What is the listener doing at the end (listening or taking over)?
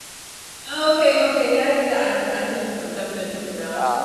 taking over